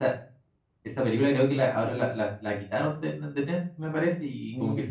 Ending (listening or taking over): listening